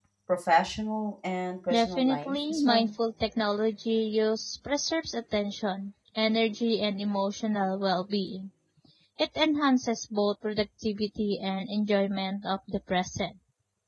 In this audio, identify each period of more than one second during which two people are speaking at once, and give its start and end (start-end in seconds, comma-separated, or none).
1.7-2.9